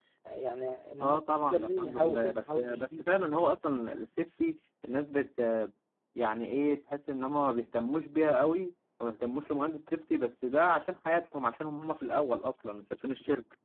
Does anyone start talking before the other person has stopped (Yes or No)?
Yes